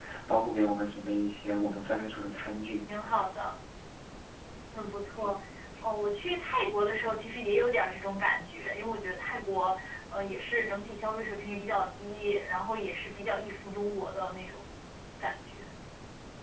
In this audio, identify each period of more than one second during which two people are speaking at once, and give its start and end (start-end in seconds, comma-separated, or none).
none